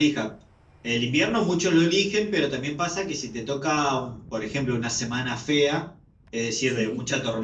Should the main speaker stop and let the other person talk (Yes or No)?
No